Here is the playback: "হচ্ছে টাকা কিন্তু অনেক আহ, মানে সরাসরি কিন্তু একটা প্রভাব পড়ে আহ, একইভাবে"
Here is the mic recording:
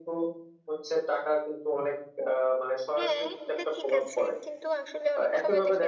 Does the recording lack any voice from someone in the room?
No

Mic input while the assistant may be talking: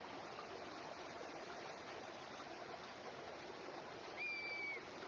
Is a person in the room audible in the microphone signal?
No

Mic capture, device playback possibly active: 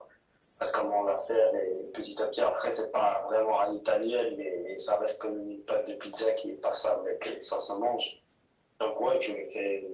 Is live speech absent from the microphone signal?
Yes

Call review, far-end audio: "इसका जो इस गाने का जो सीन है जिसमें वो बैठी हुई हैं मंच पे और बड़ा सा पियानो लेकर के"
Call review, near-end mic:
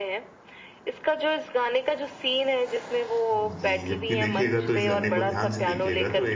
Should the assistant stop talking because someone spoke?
Yes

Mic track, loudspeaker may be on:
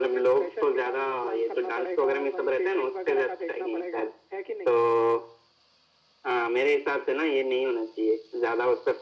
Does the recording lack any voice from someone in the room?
Yes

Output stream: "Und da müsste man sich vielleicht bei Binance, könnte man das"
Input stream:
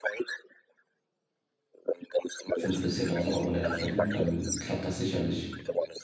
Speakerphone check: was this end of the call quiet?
No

